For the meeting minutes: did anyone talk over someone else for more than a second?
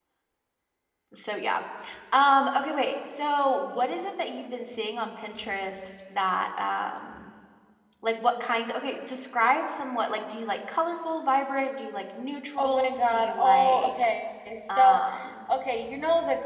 Yes, from 12.6 s

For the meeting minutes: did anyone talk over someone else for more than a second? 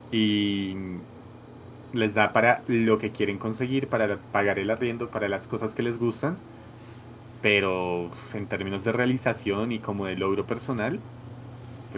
No

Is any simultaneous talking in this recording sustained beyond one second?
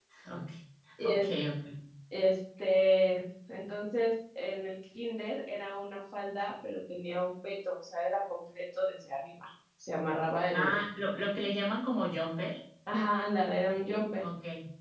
No

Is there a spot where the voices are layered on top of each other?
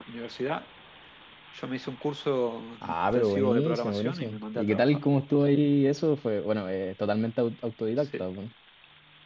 Yes, from 2.8 s

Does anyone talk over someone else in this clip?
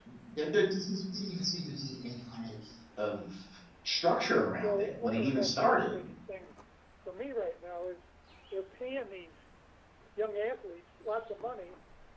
Yes, from 4.6 s

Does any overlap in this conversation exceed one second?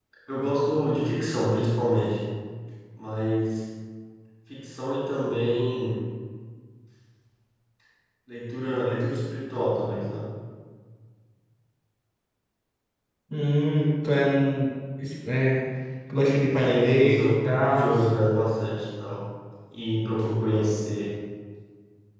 Yes, from 16.6 s

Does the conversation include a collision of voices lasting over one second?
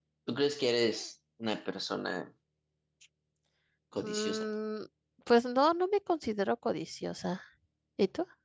No

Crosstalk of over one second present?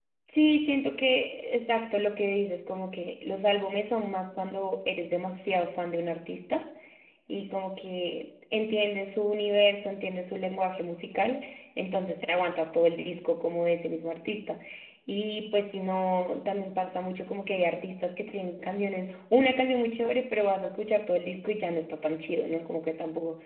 No

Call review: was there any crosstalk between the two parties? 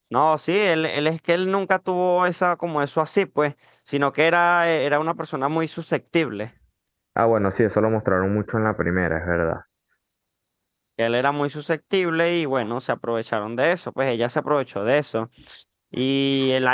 No

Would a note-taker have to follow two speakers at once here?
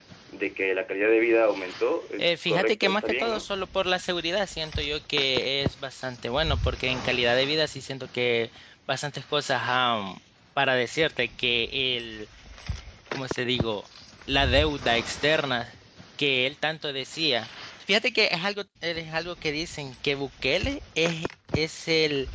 Yes, from 2.2 s

